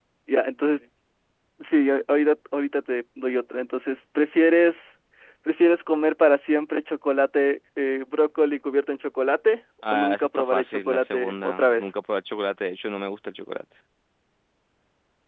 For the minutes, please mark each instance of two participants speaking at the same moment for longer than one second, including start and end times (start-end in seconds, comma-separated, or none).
9.9-11.9